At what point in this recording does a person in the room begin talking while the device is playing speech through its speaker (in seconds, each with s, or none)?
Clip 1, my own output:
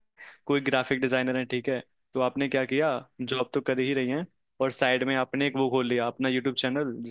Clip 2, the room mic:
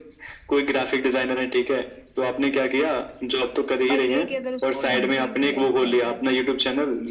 3.9 s